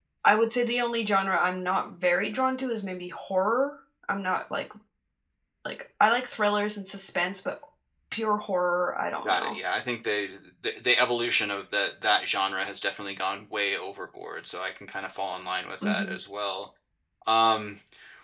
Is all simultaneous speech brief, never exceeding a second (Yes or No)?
Yes